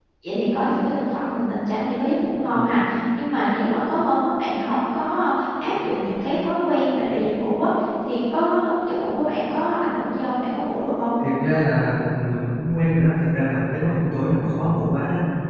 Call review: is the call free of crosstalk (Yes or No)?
Yes